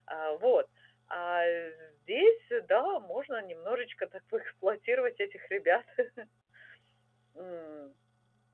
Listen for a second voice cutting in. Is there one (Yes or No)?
No